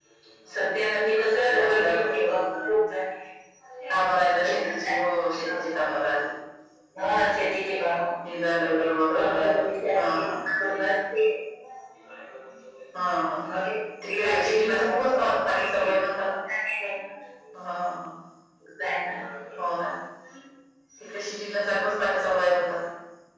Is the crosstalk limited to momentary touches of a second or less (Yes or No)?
No